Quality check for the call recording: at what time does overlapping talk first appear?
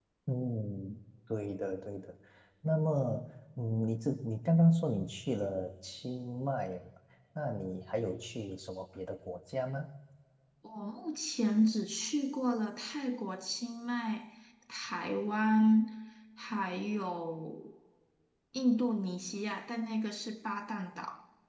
none

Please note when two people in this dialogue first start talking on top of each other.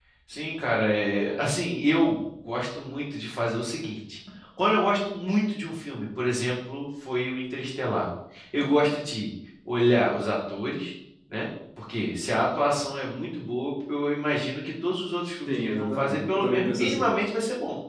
15.5 s

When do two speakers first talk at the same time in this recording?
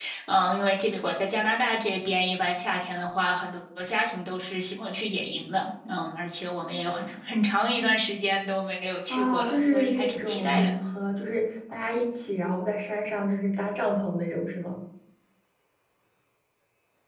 9.1 s

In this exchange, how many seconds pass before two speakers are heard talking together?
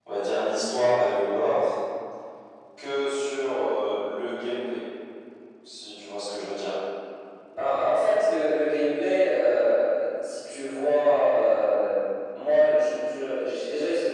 none

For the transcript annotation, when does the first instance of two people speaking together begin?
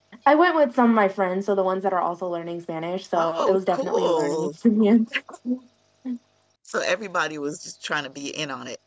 3.1 s

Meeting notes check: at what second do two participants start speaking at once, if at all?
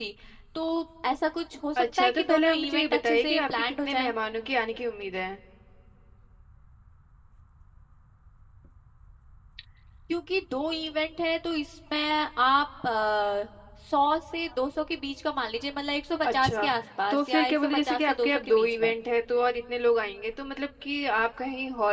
1.8 s

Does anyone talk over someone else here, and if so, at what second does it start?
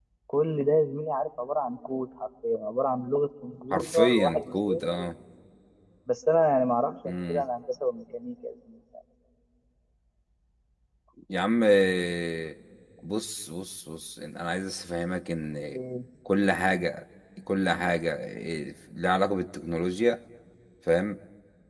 3.7 s

